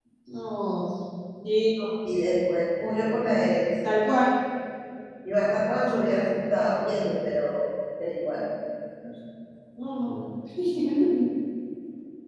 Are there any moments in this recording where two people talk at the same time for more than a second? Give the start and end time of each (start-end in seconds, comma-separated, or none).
none